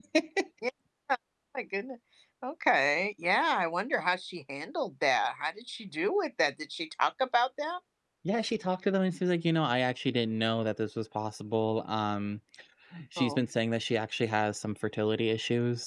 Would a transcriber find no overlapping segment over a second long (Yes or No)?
Yes